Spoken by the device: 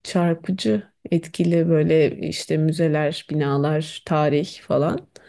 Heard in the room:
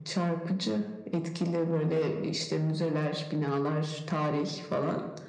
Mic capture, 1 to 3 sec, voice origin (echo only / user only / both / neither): echo only